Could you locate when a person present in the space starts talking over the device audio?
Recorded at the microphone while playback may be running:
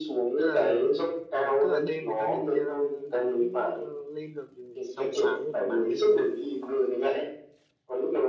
0.3 s

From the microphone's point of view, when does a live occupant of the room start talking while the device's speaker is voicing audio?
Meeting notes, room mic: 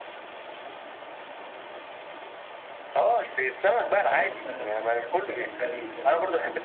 4.1 s

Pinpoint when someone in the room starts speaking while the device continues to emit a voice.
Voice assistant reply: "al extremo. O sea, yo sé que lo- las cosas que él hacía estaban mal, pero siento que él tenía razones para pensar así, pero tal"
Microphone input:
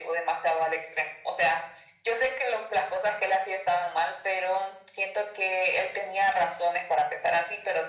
none

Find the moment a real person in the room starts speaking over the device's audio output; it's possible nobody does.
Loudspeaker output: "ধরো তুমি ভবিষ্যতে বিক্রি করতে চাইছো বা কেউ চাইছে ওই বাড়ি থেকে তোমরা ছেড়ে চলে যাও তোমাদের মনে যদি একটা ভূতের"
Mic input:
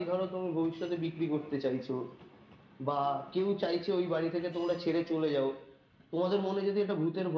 none

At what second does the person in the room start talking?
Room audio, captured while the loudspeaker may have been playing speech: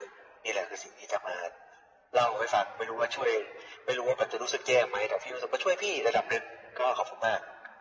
none

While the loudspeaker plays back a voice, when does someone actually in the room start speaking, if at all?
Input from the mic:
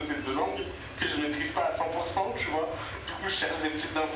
none

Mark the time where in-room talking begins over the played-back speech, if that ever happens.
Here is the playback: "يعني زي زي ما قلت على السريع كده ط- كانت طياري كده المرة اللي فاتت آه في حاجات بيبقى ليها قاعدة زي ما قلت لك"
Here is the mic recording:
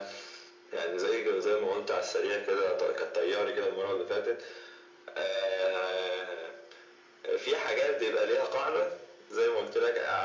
none

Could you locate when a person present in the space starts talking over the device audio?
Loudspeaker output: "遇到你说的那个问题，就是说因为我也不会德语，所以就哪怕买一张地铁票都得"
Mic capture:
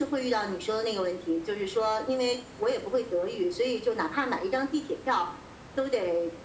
none

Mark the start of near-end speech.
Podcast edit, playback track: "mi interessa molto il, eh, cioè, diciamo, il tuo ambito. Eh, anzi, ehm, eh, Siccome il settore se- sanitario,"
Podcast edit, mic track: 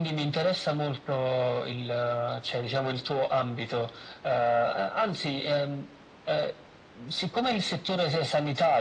none

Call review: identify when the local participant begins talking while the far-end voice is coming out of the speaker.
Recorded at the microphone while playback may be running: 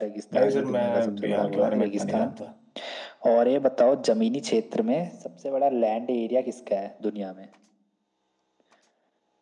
0.3 s

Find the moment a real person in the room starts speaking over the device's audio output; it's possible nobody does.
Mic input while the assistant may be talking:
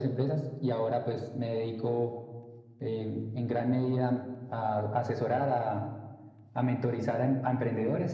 none

